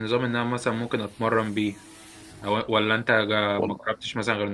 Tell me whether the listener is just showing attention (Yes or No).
Yes